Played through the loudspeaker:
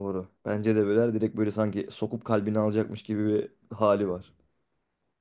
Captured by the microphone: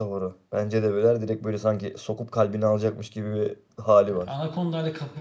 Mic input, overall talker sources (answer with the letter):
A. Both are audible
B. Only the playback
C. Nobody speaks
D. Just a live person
A